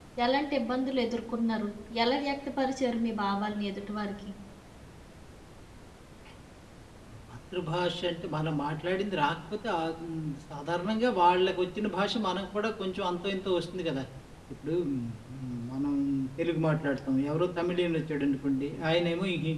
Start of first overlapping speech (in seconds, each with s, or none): none